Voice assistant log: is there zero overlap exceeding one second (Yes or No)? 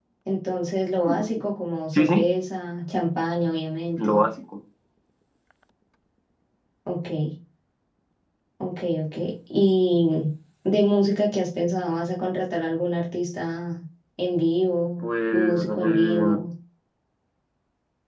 No